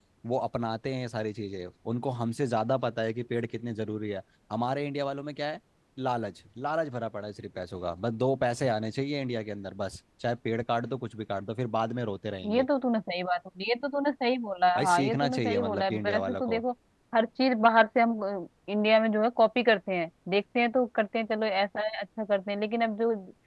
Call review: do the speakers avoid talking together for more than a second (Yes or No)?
No